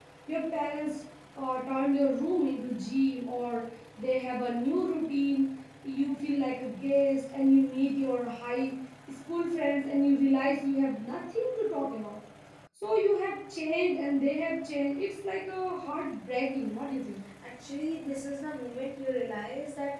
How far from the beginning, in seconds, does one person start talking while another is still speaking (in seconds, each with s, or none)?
none